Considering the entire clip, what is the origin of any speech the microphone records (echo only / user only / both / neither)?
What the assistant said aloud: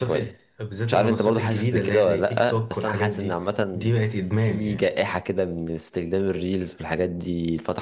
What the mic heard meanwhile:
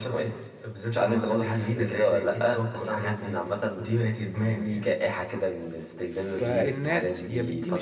both